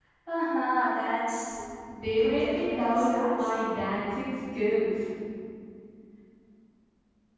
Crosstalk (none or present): present